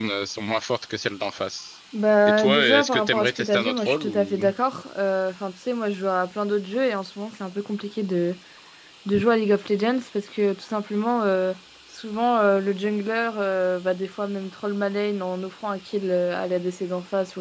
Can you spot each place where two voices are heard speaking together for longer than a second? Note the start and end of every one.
2.3-4.4

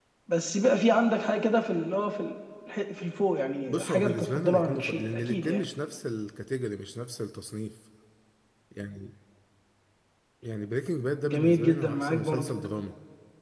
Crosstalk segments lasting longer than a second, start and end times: 3.6-5.6, 11.2-12.5

